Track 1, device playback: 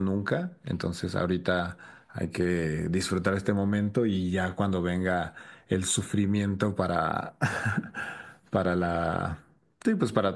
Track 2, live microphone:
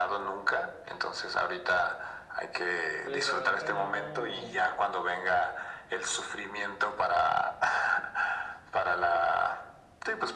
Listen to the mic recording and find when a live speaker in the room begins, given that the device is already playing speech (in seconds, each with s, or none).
3.0 s